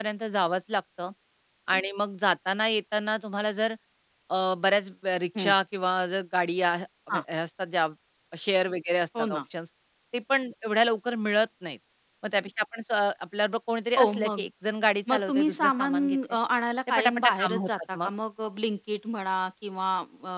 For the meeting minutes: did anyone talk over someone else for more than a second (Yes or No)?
Yes